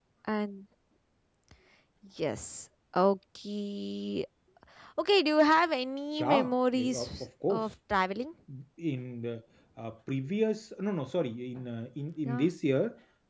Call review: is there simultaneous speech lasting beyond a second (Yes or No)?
Yes